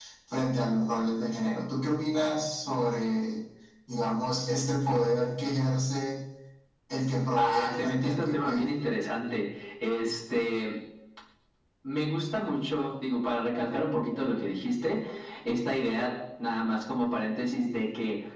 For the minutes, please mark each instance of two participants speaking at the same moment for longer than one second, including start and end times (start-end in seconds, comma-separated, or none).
7.4-8.7